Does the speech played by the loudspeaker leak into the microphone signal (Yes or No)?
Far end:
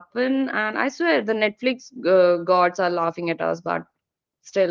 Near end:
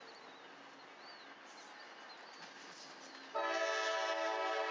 No